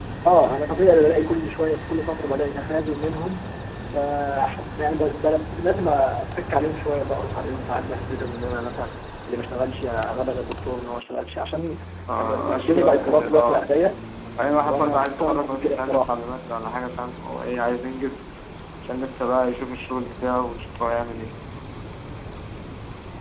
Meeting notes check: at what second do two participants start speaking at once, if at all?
12.2 s

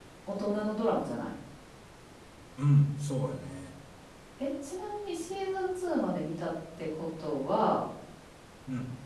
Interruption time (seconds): none

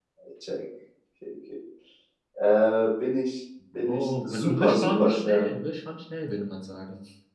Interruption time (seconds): 3.7 s

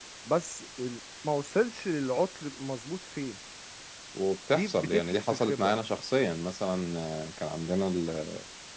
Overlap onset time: 4.5 s

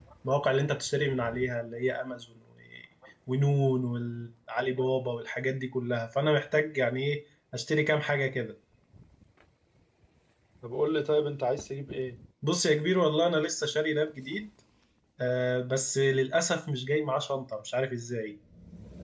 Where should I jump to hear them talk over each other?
none

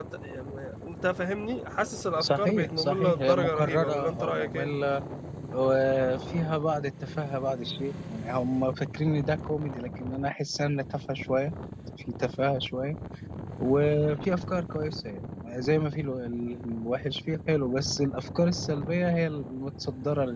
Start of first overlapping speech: 2.2 s

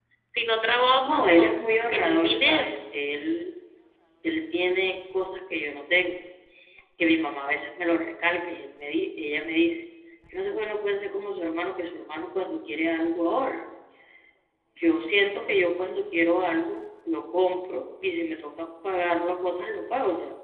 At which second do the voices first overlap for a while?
1.0 s

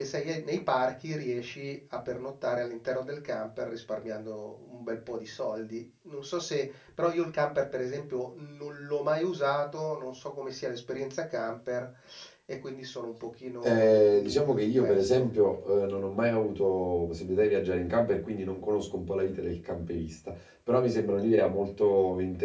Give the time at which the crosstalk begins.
13.6 s

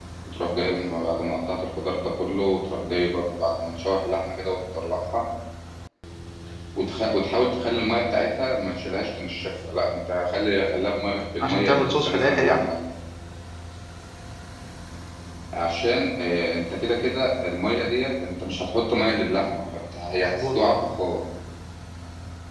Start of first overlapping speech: 11.4 s

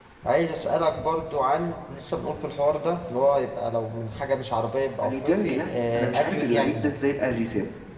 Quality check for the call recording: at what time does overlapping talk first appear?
5.0 s

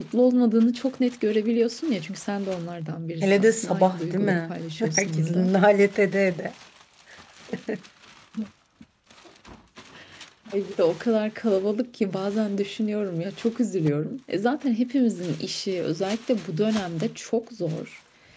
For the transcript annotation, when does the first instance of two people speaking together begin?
3.2 s

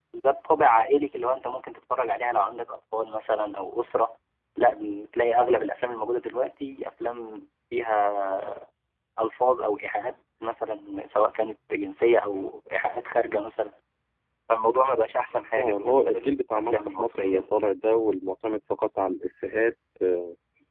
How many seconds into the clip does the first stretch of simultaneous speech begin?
15.6 s

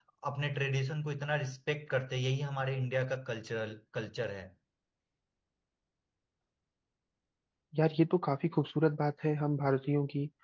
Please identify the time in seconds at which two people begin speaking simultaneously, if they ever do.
none

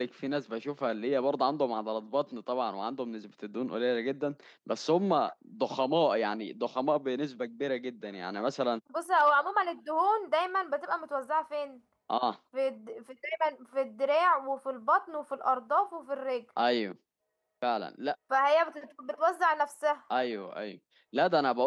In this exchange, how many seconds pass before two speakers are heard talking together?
none

